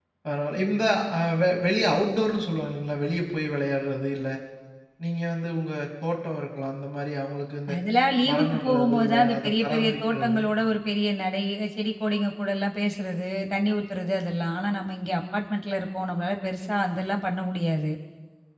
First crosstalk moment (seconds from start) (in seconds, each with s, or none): 8.3 s